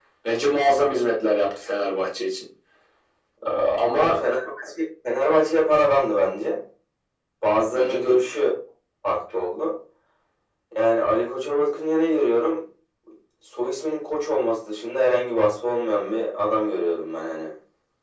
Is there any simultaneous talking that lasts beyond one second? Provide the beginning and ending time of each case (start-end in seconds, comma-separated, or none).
none